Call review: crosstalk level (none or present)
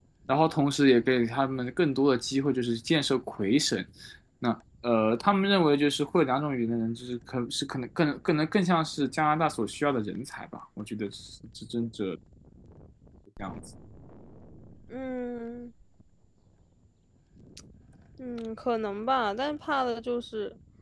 none